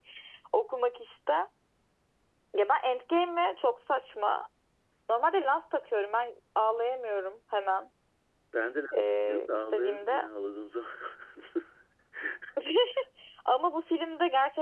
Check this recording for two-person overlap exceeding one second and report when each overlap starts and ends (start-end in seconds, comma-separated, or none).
8.9-10.3